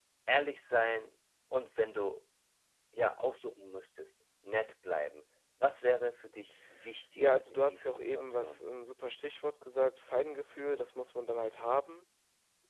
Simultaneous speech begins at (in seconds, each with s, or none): 7.2 s